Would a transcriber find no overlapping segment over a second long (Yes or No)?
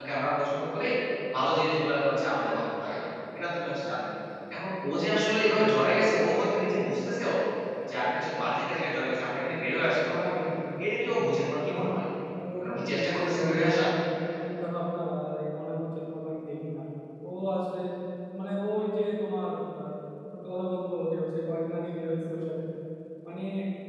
No